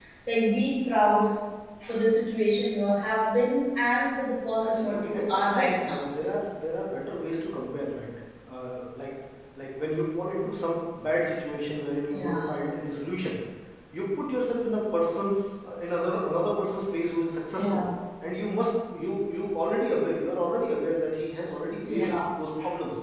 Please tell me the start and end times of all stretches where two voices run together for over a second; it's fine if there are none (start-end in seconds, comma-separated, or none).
4.6-6.0